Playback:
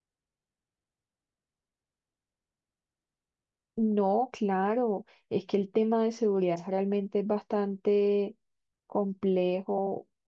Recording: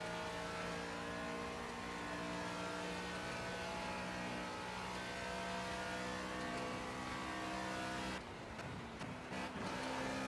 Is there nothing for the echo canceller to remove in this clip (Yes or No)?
Yes